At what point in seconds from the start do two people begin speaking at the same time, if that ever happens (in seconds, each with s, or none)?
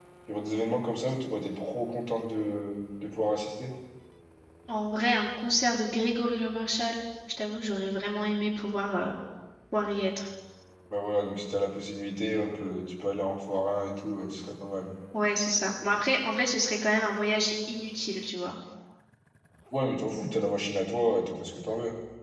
none